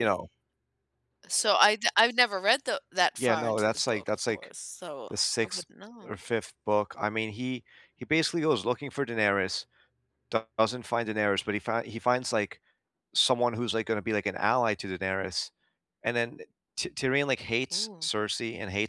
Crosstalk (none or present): present